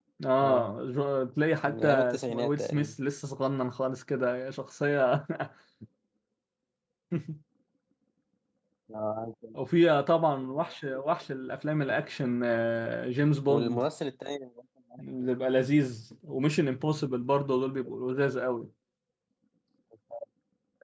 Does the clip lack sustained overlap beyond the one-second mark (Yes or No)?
No